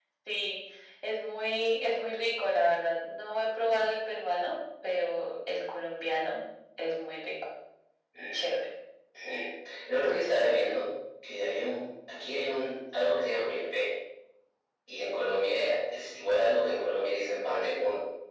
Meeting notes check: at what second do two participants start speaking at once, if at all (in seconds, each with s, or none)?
none